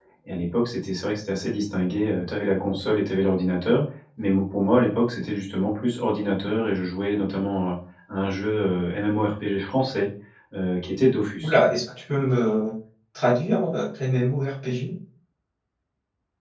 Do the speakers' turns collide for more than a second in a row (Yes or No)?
No